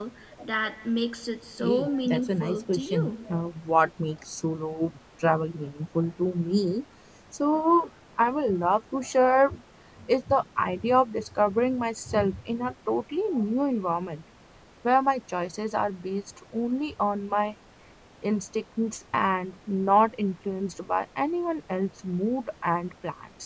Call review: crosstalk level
present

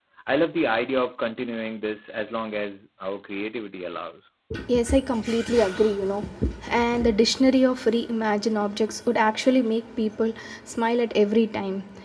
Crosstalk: none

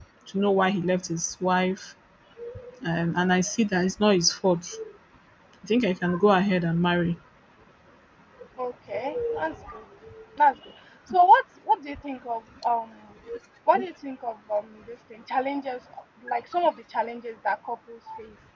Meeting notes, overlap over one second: none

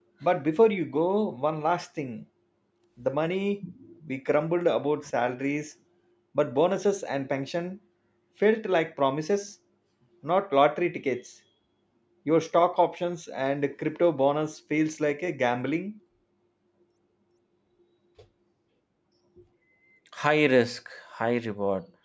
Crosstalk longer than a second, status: none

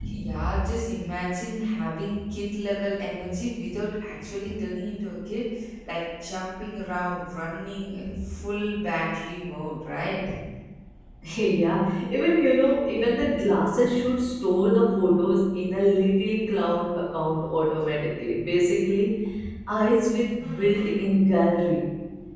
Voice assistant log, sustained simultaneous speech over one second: none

